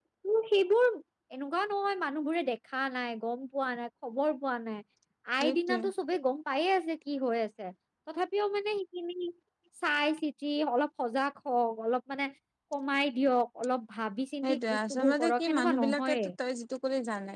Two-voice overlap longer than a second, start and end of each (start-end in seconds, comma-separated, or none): 14.4-16.3